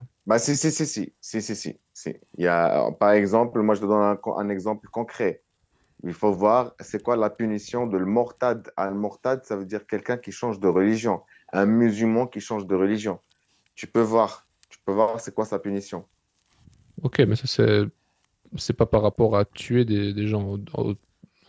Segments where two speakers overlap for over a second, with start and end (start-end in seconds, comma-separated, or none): none